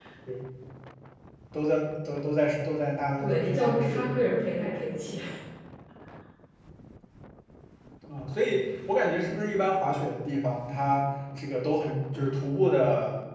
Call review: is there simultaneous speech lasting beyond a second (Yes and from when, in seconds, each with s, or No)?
Yes, from 3.2 s